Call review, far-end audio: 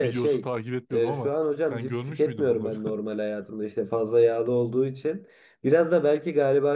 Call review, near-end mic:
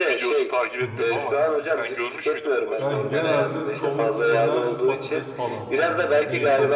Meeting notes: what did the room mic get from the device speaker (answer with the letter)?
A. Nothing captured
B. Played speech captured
B